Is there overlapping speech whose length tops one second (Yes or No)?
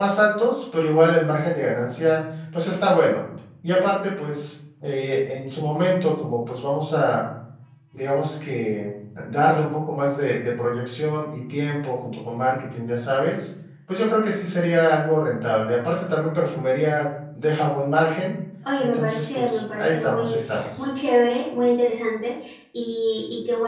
Yes